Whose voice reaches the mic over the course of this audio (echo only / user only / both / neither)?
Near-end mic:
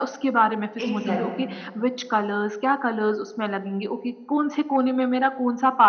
both